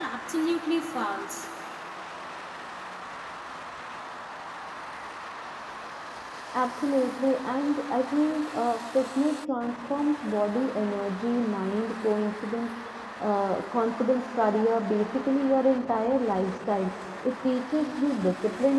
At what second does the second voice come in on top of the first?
none

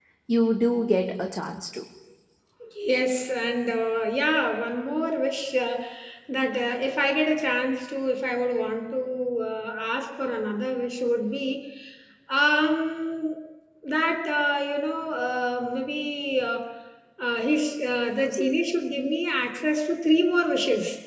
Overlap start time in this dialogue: none

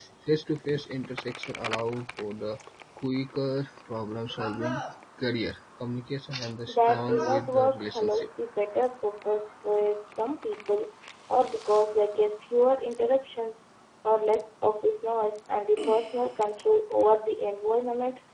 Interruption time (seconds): 6.7 s

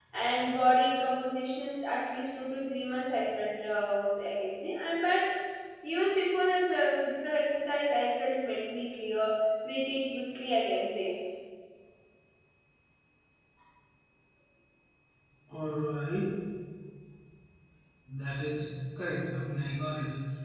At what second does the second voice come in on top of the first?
none

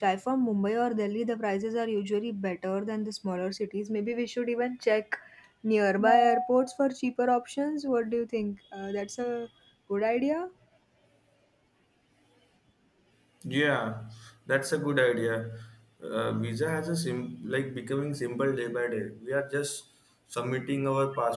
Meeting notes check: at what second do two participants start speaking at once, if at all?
none

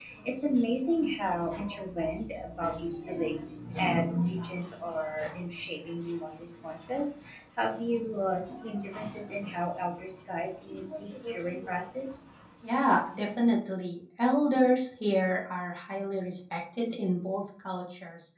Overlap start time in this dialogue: none

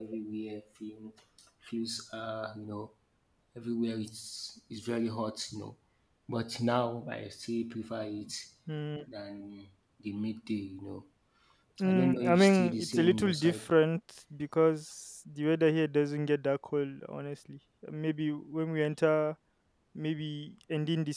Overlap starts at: 11.8 s

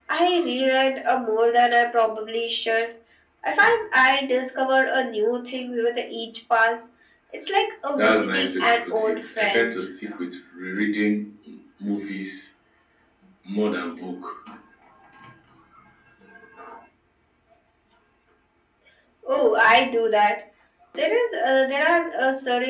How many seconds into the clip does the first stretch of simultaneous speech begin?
8.0 s

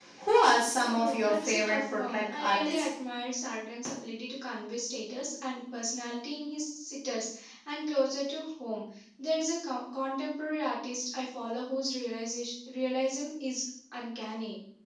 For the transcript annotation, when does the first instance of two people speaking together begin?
0.8 s

